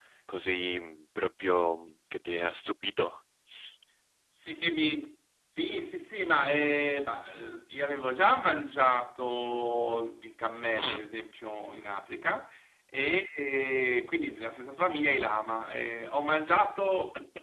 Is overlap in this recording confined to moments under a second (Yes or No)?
Yes